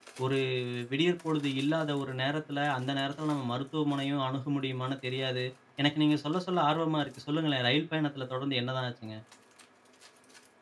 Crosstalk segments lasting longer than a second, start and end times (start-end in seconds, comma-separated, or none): none